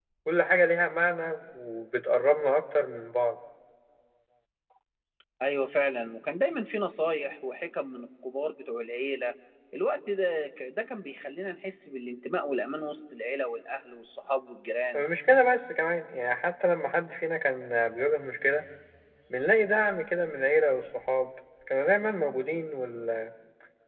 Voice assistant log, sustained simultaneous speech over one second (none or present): none